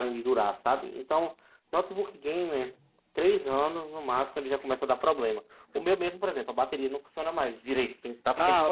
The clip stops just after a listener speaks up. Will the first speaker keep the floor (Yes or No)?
No